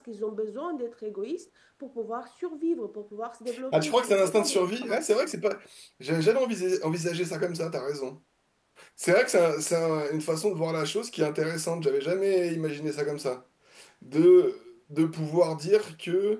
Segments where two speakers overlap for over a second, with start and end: 3.7-5.0

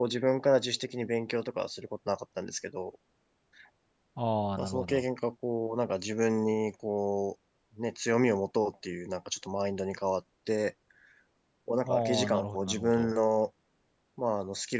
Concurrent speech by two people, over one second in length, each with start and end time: 11.8-13.1

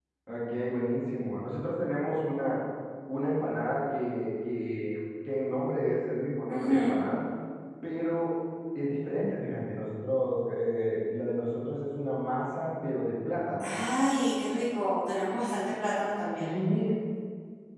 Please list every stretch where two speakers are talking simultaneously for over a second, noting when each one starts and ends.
none

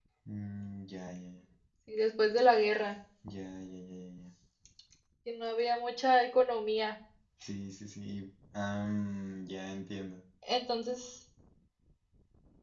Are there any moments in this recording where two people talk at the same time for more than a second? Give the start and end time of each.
none

